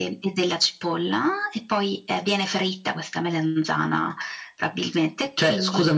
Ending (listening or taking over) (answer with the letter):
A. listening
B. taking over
B